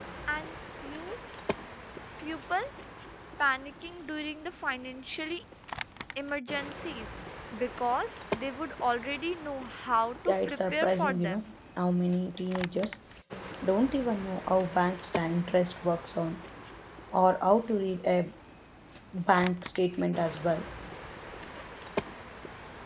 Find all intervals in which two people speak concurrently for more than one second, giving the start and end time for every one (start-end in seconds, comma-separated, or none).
10.3-11.5